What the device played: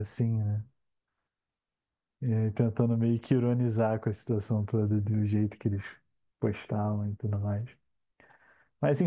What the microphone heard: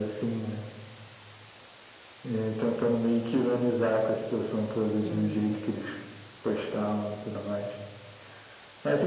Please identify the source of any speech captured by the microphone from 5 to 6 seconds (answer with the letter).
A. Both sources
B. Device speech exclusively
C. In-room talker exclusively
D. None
A